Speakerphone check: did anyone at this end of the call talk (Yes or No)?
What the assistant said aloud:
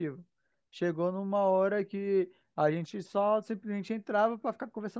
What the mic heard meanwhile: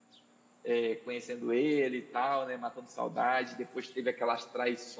Yes